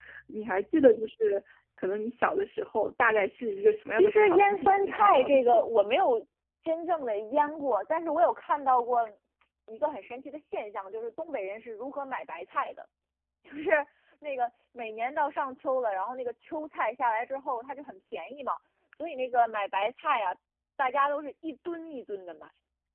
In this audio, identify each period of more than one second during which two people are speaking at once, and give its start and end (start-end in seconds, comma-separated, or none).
3.9-5.6